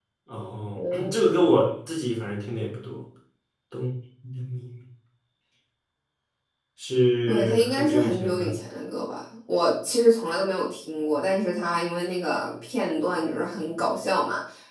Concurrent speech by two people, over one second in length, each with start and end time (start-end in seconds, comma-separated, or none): 7.3-8.6